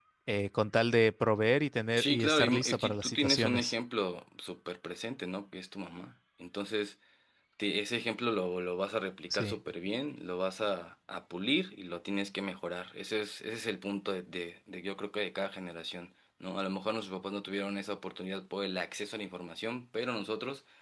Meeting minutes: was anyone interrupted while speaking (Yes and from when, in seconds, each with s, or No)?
Yes, from 2.0 s